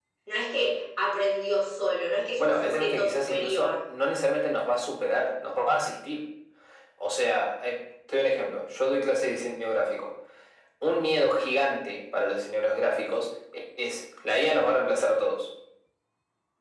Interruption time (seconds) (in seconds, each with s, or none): 2.4 s